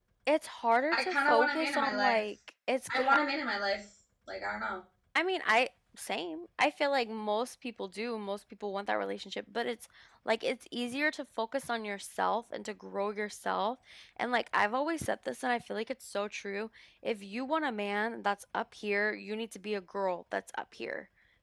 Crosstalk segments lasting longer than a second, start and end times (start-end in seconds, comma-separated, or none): 0.9-2.2